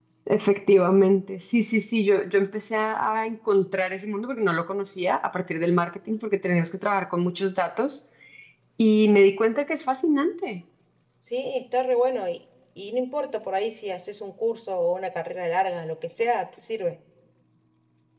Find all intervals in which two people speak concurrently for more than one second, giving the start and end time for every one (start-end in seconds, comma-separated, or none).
none